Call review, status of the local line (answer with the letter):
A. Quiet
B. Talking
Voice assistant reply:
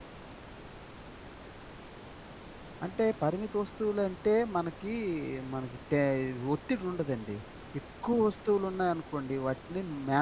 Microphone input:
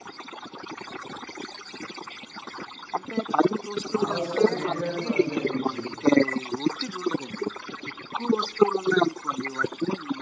B